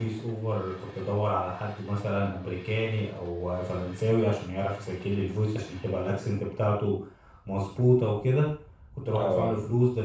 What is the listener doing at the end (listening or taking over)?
listening